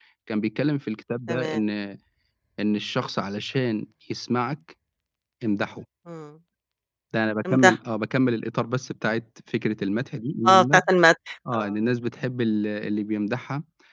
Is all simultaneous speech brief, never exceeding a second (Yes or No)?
Yes